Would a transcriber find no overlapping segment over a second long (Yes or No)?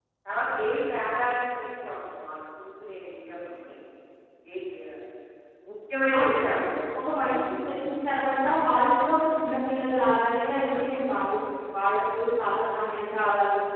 Yes